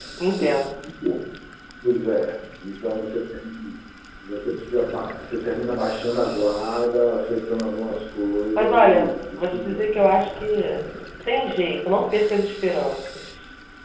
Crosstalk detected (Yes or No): Yes